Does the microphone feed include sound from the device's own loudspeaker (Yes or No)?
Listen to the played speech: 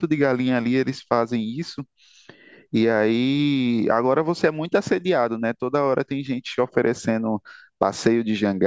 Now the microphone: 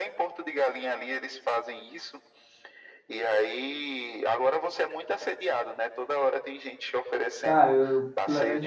Yes